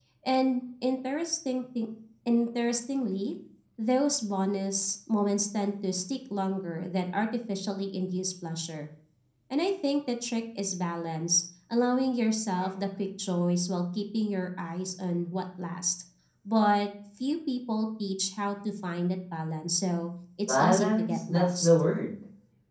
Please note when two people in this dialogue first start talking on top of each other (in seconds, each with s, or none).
20.5 s